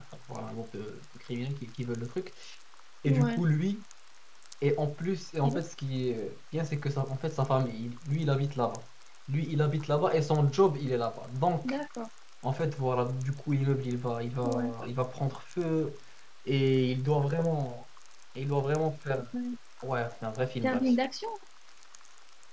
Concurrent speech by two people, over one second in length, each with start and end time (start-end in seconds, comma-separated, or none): none